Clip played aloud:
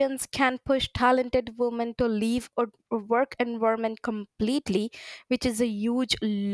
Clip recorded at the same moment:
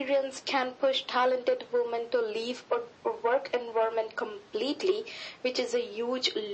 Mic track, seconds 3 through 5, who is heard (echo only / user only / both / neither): echo only